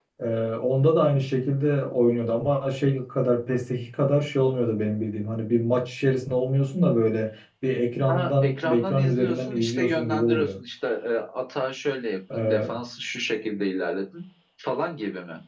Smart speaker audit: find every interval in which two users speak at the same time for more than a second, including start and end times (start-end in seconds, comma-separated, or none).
8.1-10.6